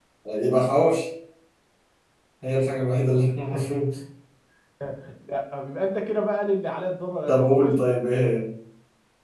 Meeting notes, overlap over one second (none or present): none